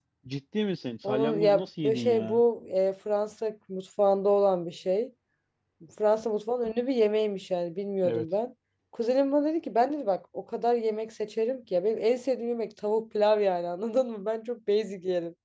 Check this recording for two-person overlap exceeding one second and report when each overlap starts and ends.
1.0-2.4

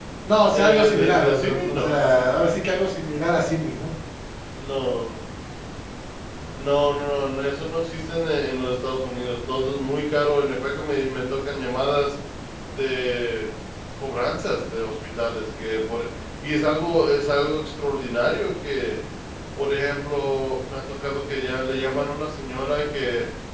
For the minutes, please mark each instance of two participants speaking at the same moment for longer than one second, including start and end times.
0.5-2.0

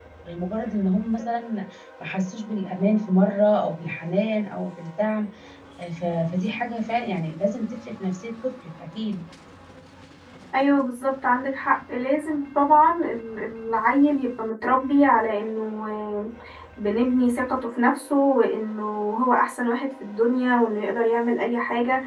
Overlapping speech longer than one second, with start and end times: none

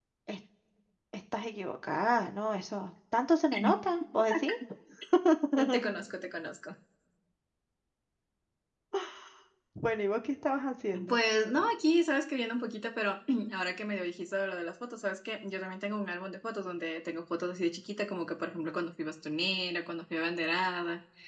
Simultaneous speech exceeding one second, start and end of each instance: none

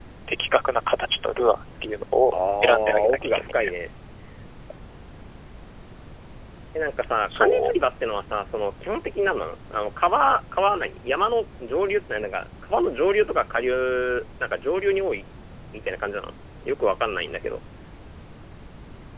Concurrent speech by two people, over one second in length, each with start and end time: 2.3-3.7

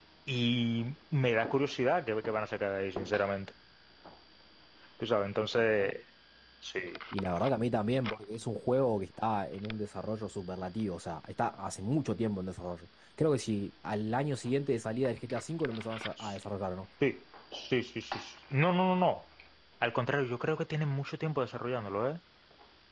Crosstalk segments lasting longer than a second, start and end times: none

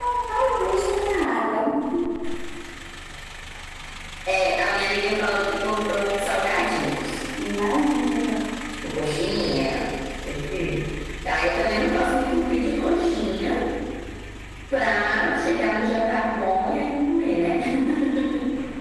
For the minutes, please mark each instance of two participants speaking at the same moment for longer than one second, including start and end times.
none

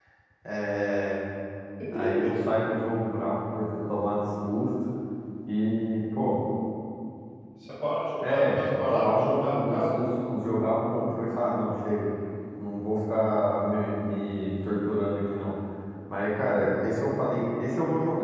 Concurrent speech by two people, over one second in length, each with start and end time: 8.2-10.0

